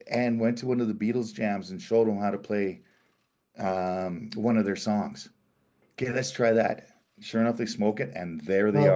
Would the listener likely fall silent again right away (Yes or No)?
No